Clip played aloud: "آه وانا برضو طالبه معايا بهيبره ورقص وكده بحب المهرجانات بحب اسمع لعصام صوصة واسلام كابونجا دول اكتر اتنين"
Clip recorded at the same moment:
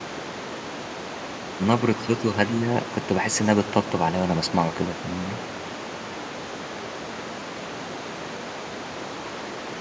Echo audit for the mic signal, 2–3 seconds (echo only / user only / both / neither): user only